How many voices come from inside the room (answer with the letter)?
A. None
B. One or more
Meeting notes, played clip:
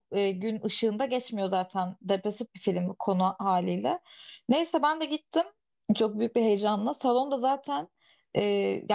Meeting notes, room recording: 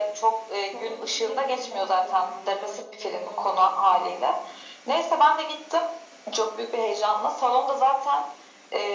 B